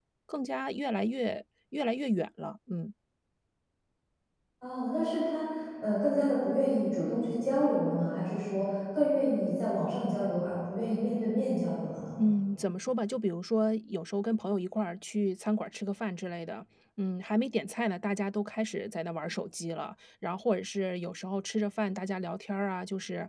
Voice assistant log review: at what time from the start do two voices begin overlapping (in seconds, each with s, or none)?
none